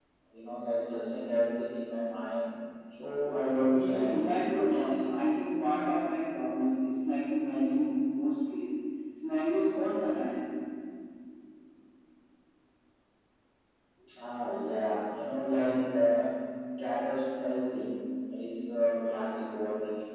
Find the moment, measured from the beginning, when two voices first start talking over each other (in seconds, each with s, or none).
3.7 s